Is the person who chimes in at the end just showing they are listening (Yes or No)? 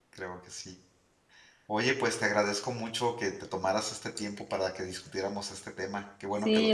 No